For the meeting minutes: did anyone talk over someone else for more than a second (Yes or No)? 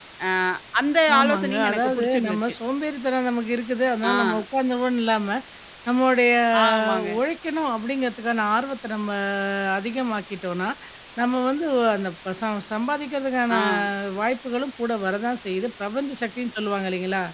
Yes